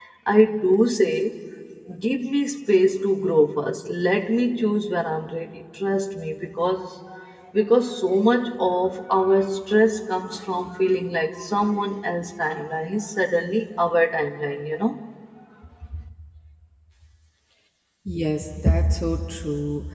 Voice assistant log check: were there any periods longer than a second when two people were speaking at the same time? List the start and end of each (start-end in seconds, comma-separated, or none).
none